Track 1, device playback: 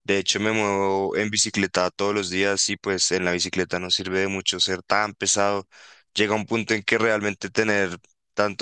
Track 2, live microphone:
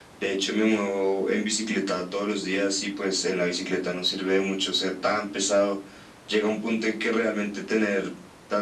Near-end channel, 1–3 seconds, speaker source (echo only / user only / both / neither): echo only